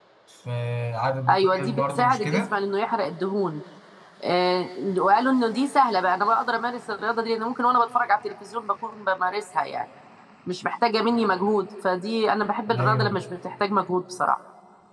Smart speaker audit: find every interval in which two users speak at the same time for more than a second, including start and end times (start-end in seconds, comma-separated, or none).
1.3-2.5